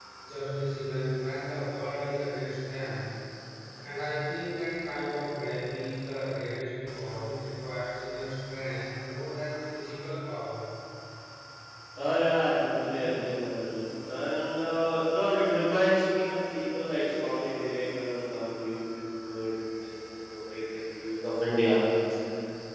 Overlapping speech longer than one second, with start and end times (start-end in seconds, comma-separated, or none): none